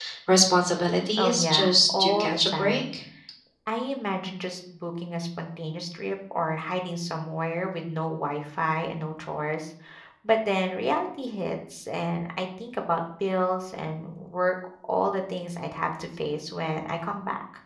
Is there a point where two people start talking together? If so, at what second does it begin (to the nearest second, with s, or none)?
1 s